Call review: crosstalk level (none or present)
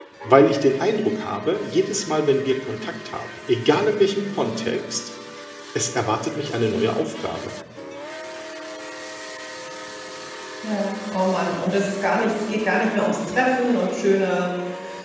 none